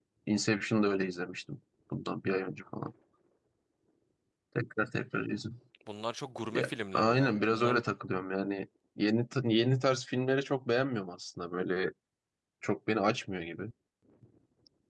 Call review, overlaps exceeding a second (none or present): present